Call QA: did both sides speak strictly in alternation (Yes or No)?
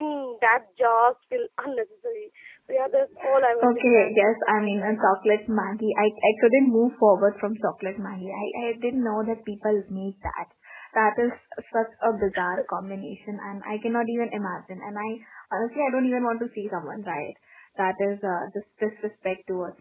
No